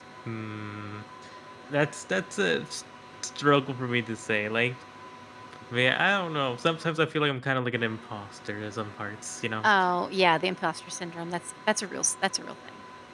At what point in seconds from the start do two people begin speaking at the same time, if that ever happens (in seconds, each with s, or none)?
none